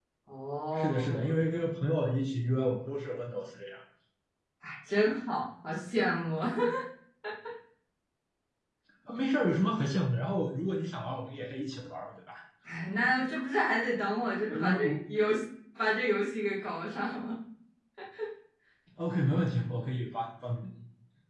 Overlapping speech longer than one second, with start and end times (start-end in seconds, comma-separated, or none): none